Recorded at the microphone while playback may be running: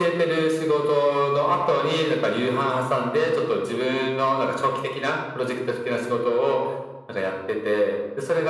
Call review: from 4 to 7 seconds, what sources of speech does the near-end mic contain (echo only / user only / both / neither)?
echo only